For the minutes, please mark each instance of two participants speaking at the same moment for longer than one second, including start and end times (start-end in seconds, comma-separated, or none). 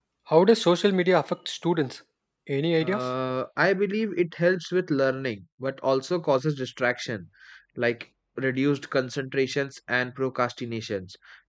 none